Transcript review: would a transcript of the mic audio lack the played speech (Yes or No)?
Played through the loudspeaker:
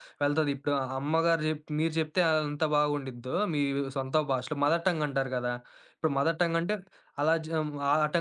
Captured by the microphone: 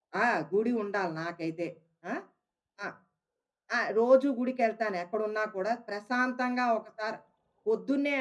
Yes